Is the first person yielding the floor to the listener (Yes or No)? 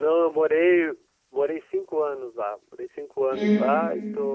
No